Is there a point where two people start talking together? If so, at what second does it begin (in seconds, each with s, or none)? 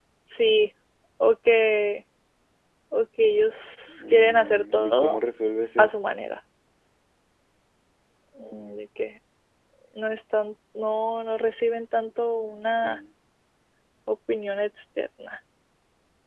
3.9 s